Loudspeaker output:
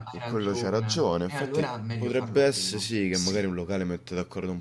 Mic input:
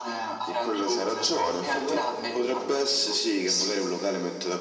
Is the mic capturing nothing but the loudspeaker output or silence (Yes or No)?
Yes